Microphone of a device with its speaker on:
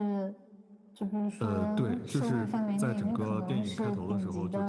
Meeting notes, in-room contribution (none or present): present